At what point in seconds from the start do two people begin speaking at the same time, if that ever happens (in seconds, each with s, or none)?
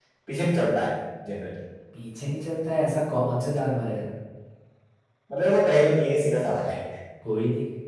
none